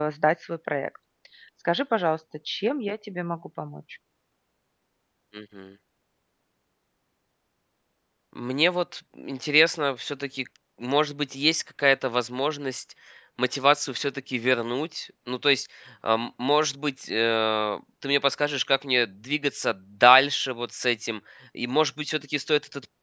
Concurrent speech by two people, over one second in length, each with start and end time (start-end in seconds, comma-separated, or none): none